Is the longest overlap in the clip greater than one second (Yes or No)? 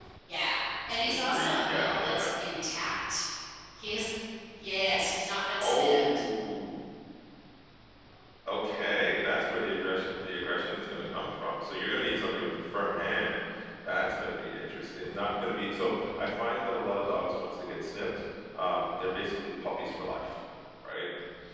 Yes